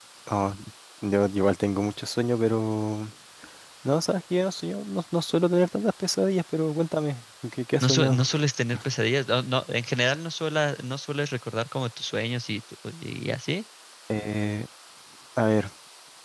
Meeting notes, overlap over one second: none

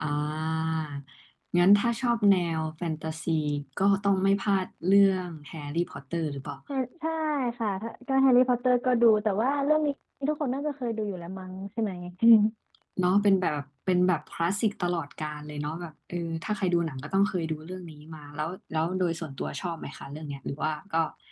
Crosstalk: none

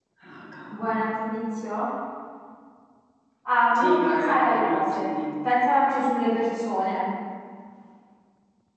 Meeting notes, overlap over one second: present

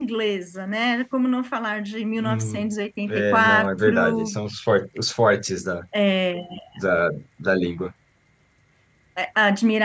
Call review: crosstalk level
present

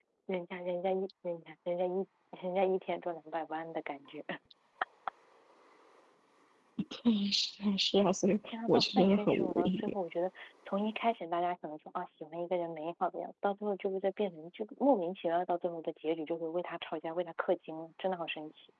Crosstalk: present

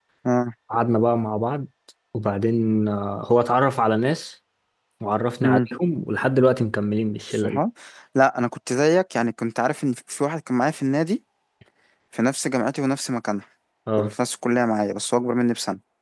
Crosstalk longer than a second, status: none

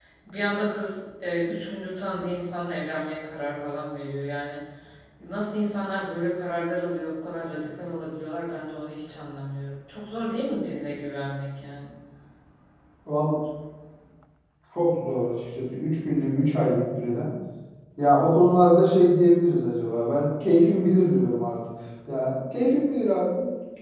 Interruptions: none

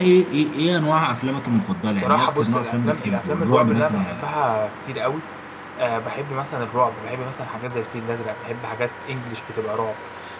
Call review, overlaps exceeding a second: present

